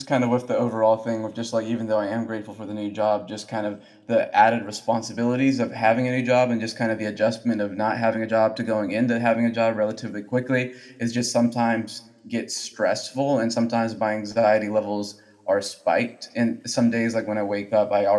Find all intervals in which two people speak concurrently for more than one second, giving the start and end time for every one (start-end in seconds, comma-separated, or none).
none